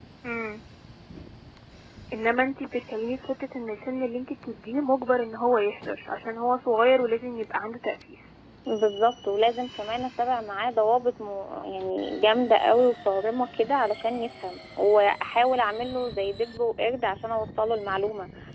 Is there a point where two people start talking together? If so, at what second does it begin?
none

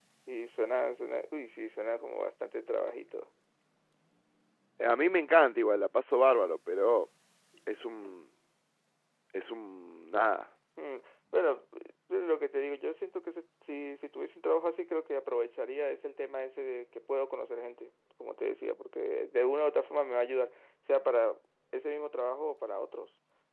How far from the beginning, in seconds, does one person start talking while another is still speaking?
none

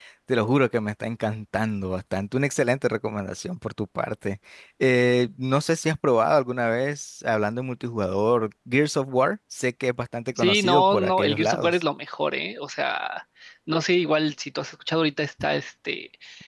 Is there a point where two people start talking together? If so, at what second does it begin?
10 s

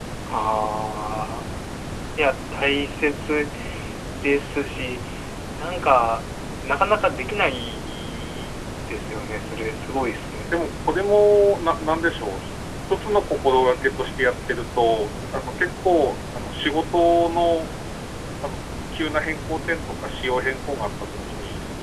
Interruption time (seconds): none

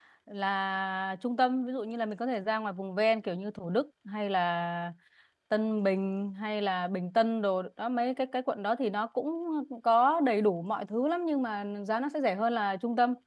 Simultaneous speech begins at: none

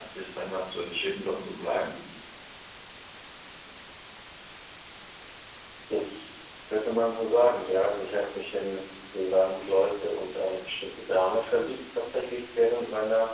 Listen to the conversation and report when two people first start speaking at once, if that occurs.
none

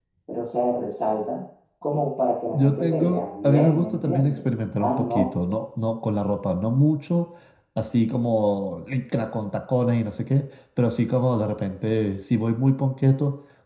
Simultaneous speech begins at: 3 s

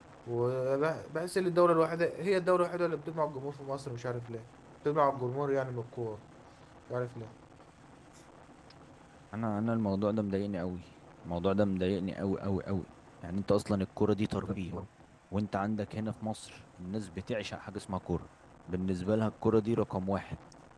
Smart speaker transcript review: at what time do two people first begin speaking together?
none

